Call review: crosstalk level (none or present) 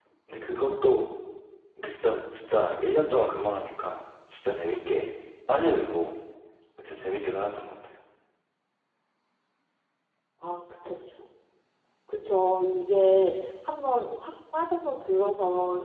none